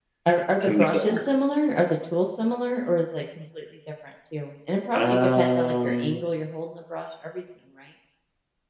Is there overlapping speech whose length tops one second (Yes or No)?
Yes